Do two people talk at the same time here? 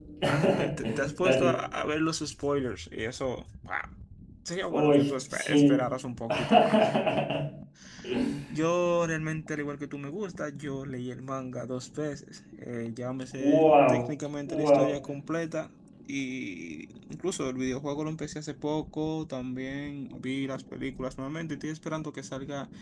Yes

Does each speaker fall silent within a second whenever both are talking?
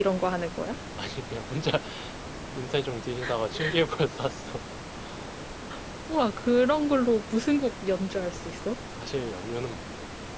Yes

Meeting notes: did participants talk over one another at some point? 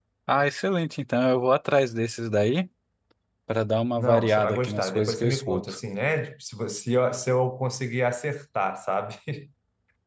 Yes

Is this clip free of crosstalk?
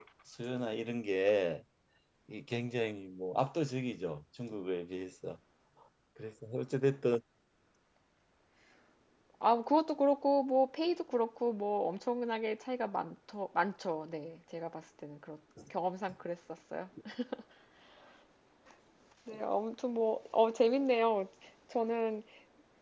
Yes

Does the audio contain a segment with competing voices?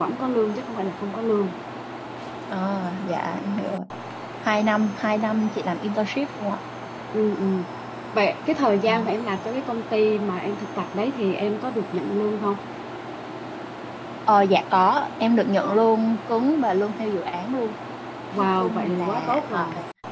Yes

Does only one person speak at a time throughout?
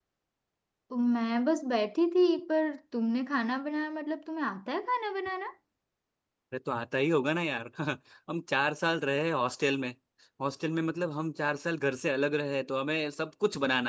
Yes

